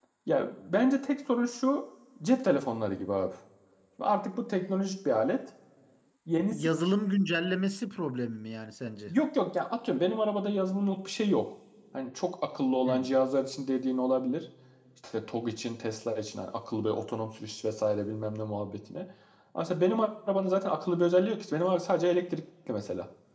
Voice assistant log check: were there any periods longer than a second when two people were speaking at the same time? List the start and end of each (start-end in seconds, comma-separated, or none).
none